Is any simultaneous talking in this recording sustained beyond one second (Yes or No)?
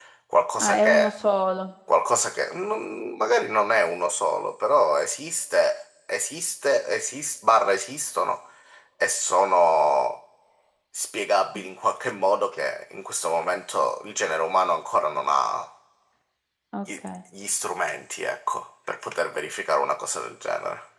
No